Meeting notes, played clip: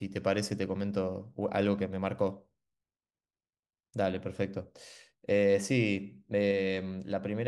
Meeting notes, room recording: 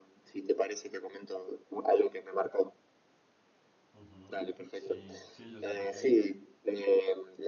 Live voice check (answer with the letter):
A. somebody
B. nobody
A